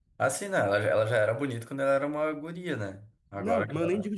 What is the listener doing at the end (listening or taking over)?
taking over